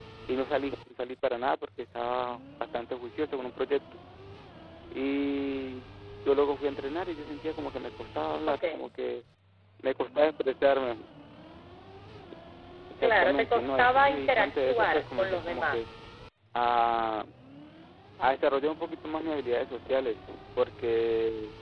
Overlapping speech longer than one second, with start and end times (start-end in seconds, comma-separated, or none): 13.0-15.8